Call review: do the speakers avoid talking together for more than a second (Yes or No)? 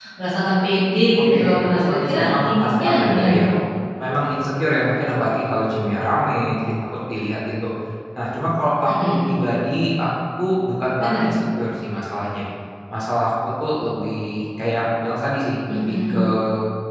No